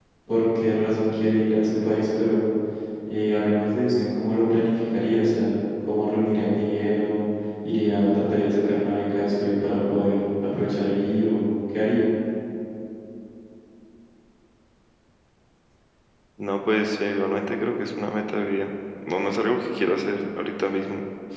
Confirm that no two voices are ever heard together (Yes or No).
Yes